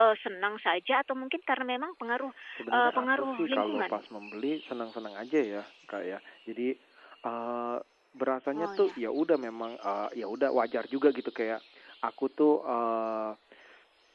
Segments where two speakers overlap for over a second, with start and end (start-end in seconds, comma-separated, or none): 2.7-4.0